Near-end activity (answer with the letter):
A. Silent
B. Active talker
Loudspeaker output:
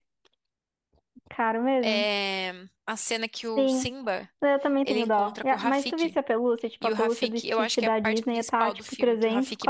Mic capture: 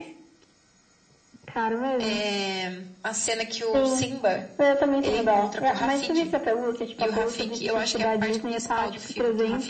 A